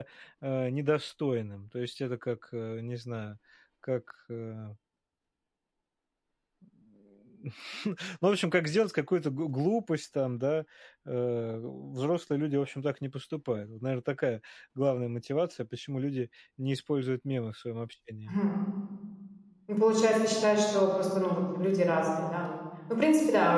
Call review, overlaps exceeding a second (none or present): none